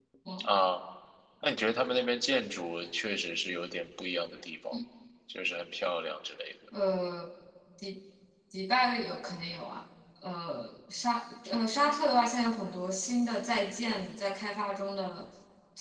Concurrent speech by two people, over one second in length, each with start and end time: none

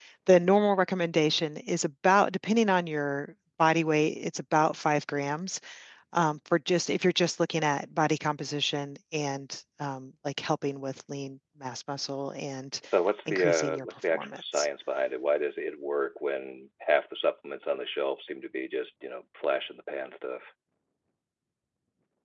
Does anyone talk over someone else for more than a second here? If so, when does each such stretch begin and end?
13.3-14.7

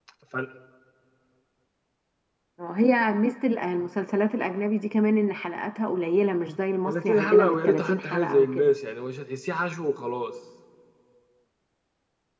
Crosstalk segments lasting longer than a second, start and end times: 6.8-8.7

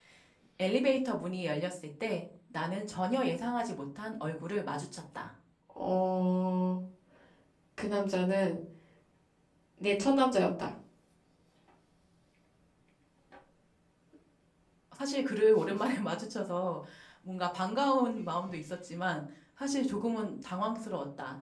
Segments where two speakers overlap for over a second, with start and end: none

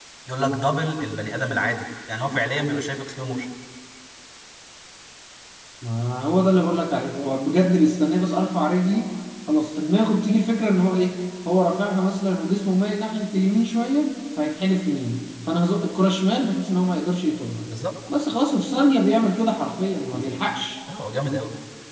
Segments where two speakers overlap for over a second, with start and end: none

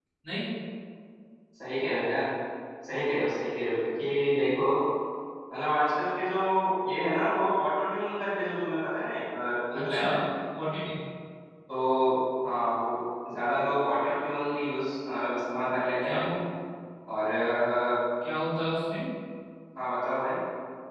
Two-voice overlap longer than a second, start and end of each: none

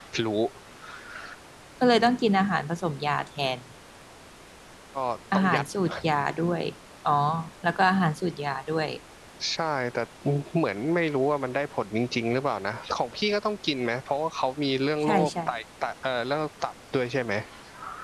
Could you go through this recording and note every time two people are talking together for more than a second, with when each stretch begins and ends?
none

